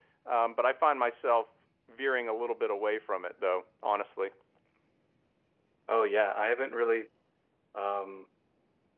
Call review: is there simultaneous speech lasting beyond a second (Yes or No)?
No